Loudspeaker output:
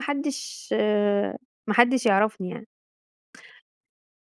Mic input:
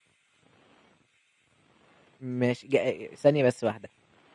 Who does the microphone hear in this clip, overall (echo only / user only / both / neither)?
user only